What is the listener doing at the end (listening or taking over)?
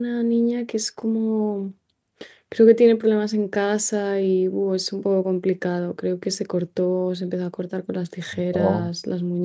listening